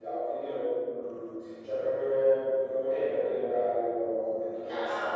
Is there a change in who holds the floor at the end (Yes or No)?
Yes